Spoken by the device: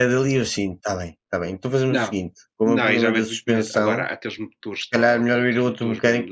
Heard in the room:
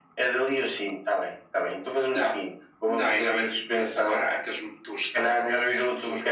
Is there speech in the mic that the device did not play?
No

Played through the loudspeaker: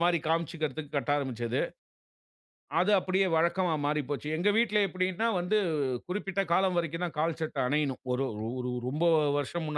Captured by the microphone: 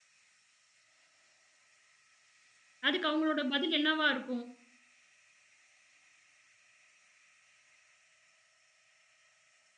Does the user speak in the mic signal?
Yes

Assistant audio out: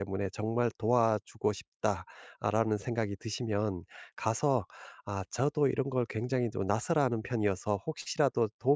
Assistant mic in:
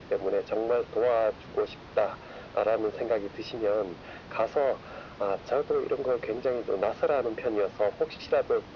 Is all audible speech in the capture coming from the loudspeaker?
Yes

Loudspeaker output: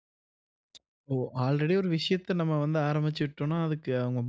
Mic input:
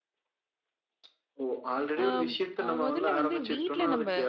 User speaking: Yes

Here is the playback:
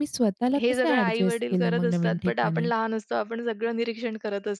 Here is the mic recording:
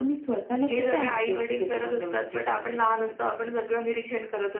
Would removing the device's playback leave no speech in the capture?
Yes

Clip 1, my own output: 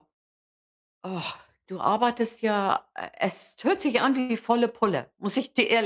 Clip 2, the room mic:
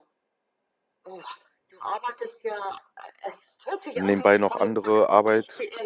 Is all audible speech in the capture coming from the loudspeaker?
No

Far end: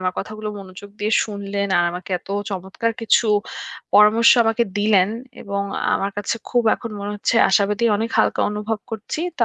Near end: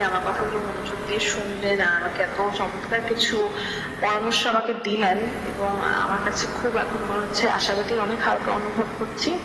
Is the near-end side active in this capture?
No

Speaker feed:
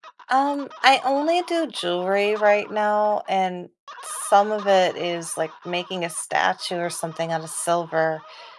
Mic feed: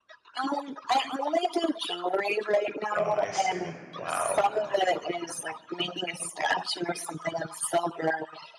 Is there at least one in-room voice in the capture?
Yes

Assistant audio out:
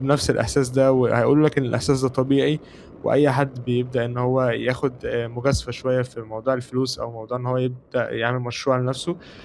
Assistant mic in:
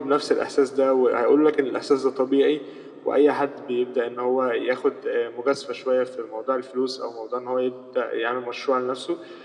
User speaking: No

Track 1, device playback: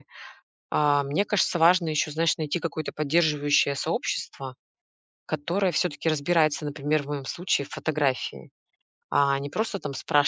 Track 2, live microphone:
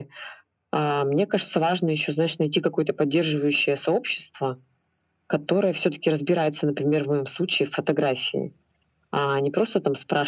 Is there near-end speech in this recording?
No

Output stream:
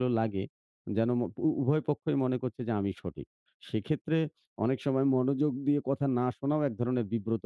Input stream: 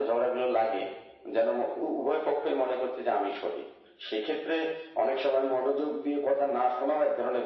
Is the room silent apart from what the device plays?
Yes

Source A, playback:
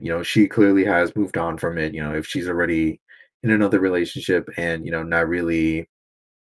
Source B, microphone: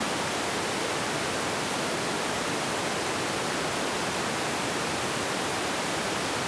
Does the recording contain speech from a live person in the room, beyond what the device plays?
No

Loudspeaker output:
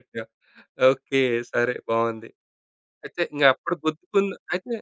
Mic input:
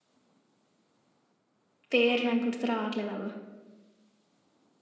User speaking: Yes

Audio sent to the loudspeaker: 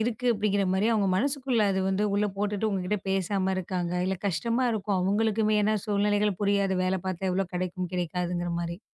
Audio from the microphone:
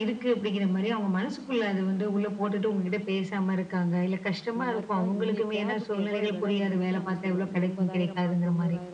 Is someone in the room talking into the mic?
Yes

